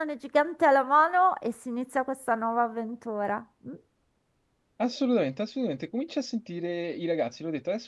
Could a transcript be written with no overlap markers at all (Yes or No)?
Yes